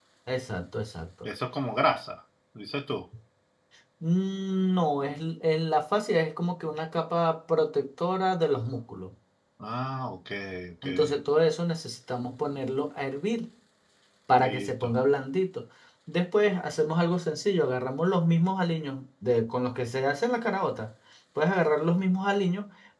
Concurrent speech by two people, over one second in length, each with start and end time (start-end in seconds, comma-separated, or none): none